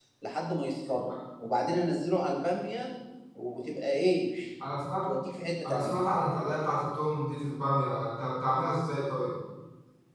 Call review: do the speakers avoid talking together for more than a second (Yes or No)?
Yes